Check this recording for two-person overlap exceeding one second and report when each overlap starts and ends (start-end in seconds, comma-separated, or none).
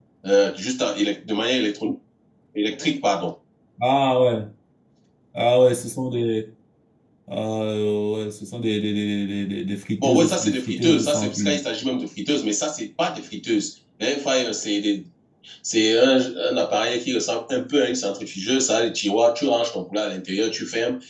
10.0-11.6